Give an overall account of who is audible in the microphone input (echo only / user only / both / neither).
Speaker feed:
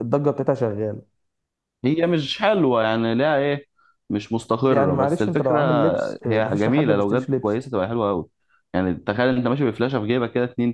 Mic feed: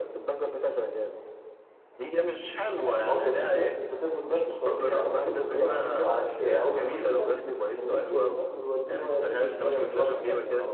both